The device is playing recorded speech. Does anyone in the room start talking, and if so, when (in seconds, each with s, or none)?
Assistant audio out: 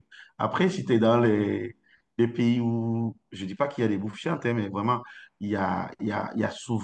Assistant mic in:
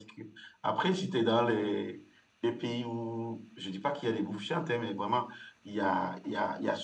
none